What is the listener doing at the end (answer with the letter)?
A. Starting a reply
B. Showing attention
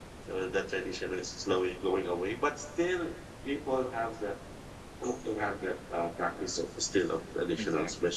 B